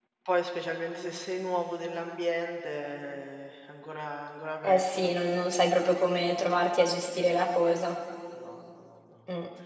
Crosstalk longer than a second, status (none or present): none